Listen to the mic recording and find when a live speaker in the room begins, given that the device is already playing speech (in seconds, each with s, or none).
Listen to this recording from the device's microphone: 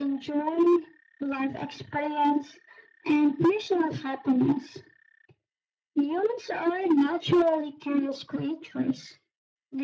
none